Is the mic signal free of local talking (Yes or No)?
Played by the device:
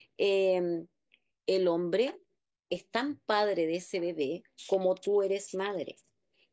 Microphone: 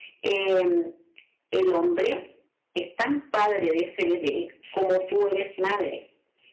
Yes